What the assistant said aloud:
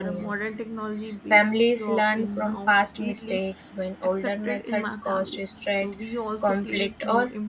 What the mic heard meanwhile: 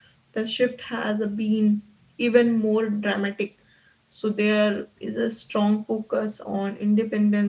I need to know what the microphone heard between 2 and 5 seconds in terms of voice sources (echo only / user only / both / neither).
user only